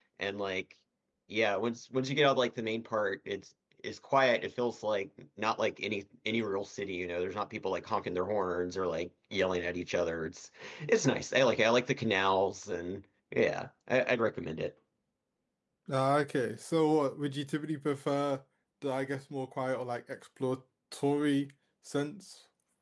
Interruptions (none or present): none